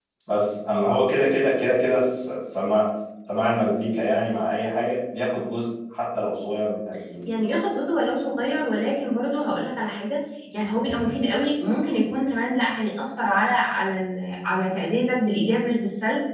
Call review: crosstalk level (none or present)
none